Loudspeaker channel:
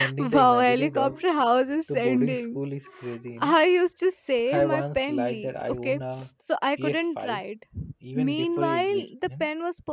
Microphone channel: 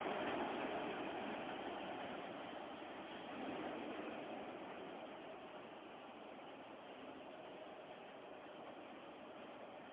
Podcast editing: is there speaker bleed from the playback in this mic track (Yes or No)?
No